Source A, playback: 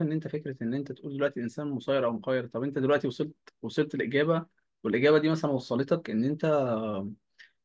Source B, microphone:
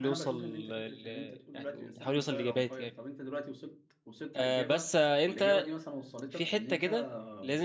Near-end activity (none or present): present